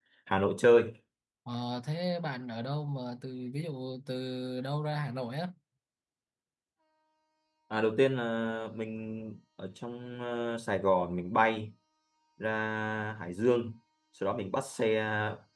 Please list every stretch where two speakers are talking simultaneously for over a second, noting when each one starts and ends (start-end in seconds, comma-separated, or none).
none